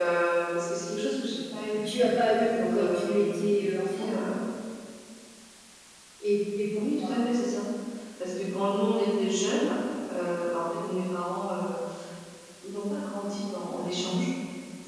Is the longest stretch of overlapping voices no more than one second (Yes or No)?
No